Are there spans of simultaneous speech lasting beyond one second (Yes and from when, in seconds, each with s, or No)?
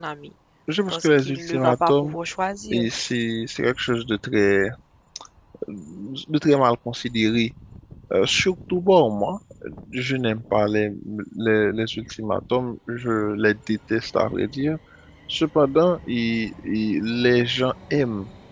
Yes, from 0.9 s